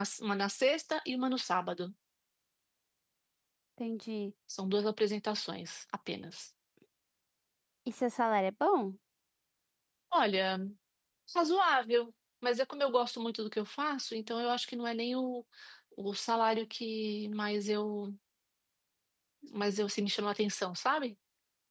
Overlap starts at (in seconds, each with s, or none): none